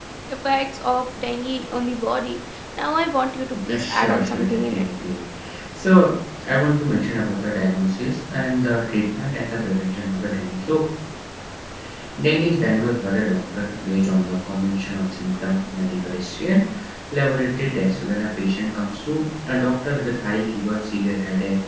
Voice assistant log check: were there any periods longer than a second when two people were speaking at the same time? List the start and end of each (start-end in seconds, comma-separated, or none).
3.6-4.8